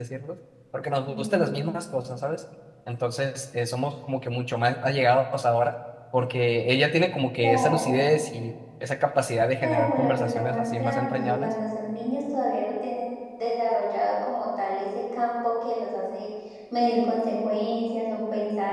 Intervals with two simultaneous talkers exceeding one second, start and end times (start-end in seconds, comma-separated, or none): 9.6-11.5